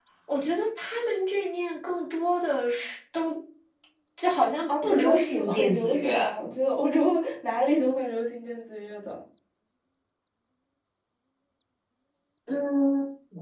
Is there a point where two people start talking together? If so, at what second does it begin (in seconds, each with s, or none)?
4.7 s